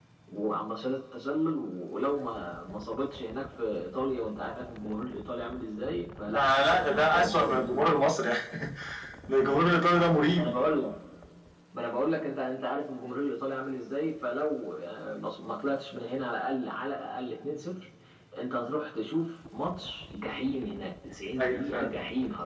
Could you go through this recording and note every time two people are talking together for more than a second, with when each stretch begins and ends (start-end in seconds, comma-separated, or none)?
6.3-8.1